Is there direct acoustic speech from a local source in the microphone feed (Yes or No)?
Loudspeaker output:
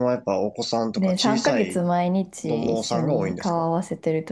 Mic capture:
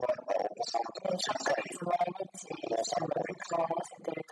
No